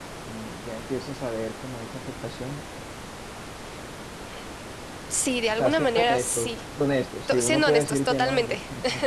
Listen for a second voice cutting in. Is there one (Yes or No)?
Yes